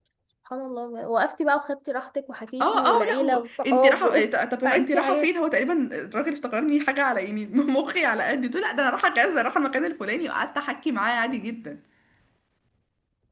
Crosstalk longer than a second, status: present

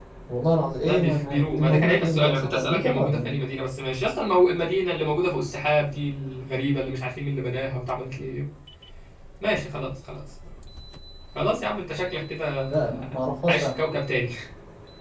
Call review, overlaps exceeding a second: present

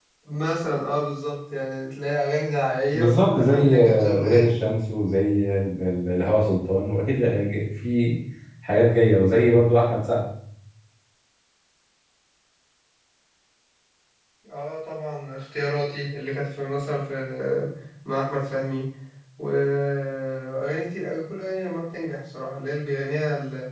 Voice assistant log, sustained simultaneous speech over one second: present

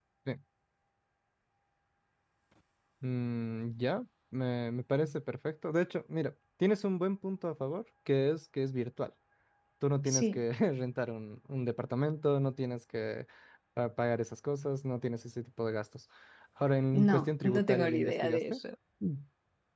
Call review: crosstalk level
present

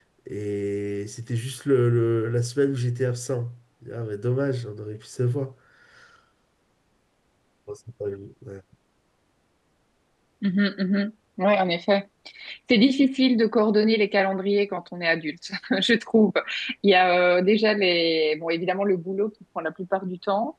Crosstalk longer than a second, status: none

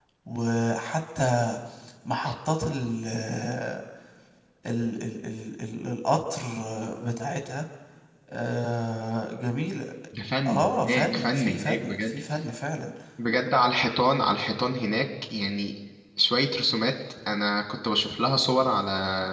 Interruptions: present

